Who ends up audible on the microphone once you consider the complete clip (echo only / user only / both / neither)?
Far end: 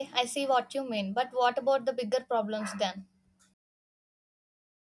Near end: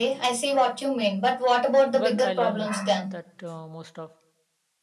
both